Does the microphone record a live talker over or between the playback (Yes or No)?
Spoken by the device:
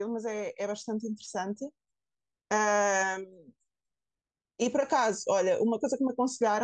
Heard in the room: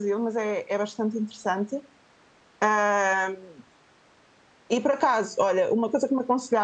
No